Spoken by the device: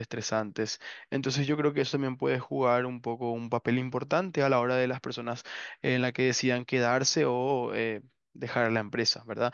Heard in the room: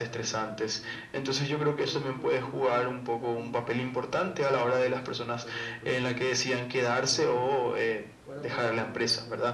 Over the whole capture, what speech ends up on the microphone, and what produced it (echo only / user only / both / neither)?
both